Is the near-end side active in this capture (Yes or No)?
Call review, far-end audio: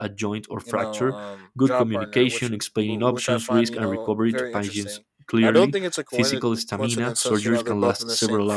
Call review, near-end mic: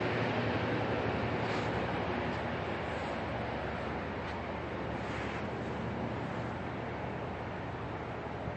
No